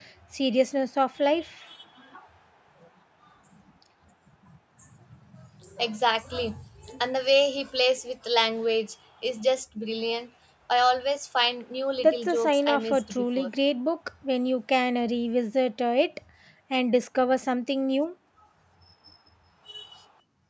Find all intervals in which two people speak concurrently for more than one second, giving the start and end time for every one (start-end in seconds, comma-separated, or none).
12.0-13.5